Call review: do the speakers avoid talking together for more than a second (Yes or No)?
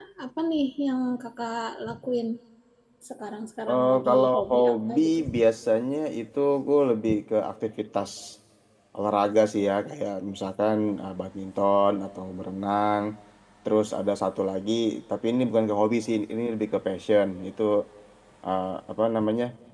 No